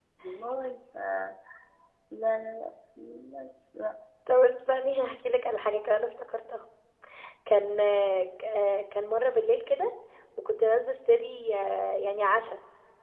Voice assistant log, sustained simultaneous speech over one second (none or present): none